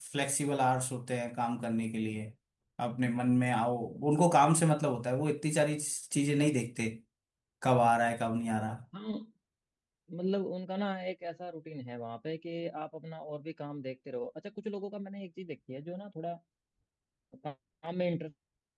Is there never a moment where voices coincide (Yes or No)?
Yes